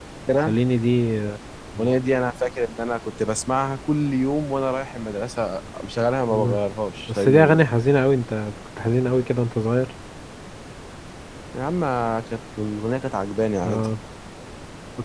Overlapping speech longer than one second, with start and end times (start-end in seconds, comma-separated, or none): none